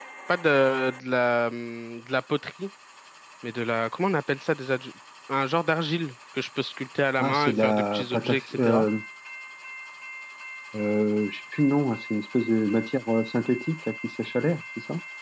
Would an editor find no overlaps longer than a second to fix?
No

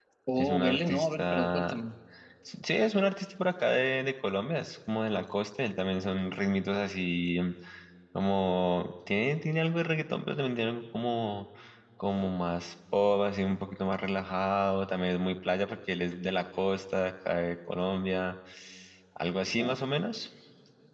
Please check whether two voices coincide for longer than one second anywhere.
Yes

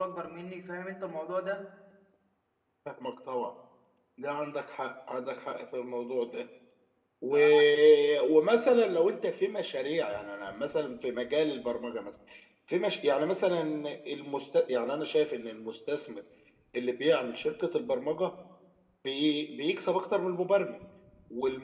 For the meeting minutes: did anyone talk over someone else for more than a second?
No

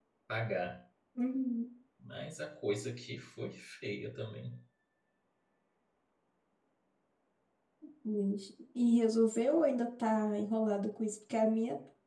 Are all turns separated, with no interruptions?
Yes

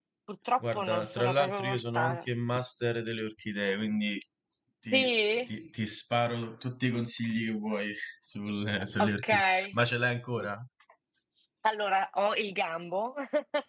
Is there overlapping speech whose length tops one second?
Yes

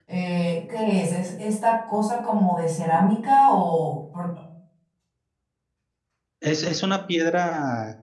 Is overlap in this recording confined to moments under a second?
Yes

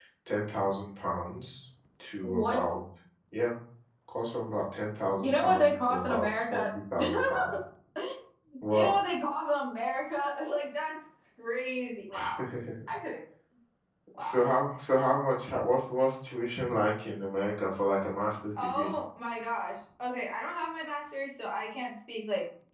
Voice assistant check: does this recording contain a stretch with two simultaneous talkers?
Yes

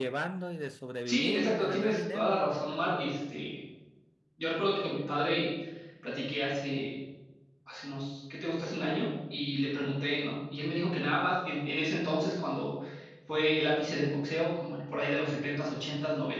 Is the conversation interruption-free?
No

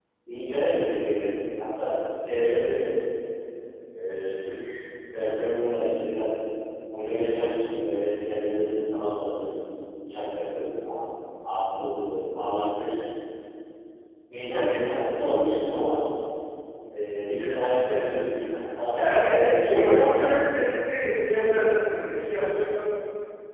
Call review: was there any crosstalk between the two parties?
Yes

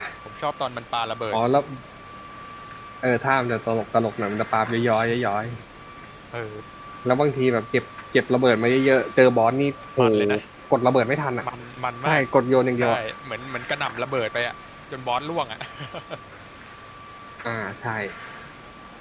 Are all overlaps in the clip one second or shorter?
Yes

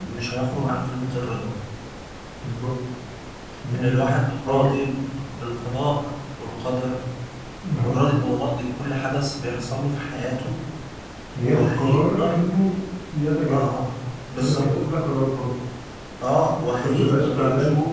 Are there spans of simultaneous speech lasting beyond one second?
Yes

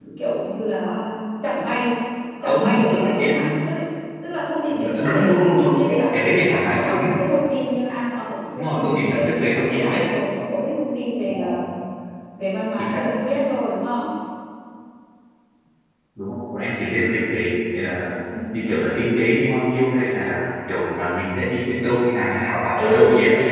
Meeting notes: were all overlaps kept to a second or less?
No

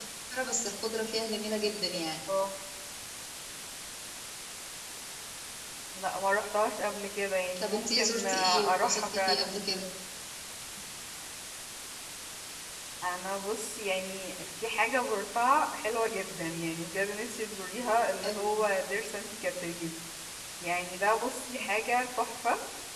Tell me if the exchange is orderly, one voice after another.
No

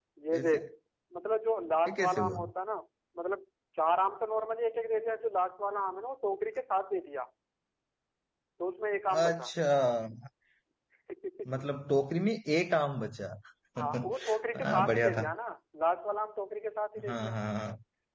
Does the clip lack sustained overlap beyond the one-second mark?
No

